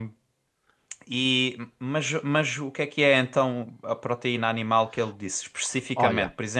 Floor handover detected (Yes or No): No